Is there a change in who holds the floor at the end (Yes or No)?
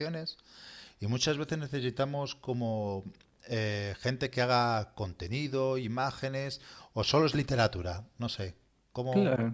Yes